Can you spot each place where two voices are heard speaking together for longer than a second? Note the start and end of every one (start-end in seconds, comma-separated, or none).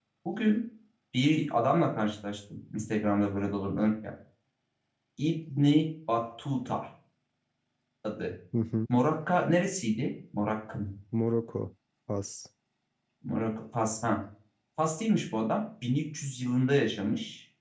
none